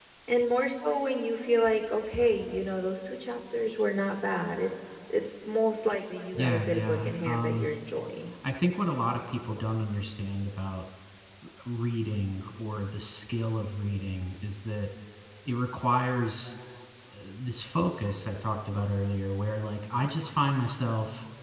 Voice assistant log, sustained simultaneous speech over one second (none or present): present